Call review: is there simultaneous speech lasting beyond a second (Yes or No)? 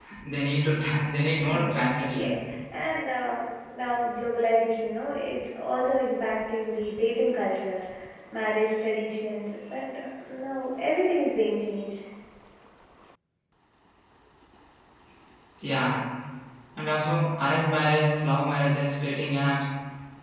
No